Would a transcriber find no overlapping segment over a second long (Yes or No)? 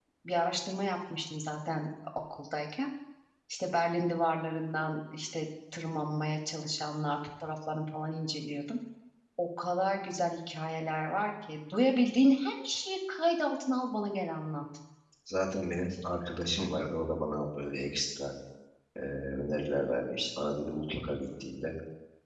Yes